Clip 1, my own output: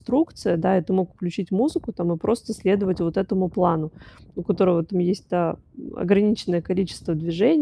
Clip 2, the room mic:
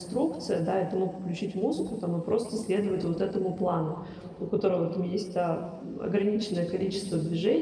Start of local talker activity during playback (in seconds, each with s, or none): none